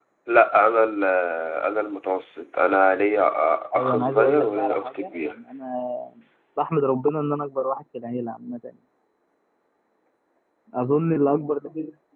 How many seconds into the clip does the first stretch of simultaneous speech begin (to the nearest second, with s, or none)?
4 s